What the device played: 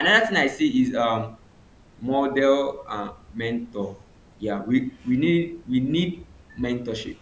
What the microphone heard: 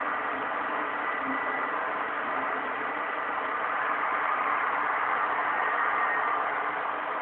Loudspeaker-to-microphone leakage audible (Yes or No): No